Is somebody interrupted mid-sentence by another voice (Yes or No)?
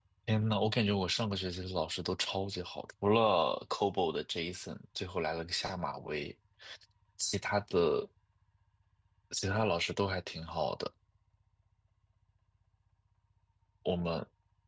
No